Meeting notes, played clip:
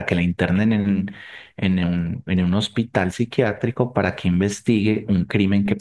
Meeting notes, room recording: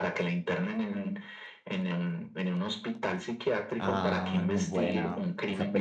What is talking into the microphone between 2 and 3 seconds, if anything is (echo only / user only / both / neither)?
echo only